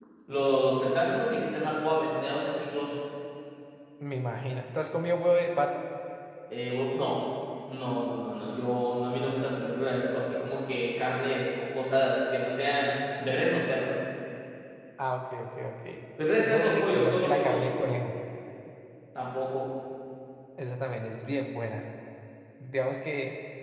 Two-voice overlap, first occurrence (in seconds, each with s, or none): 16.4 s